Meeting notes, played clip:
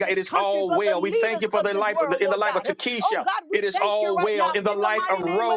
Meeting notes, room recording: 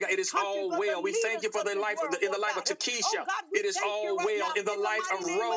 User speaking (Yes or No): No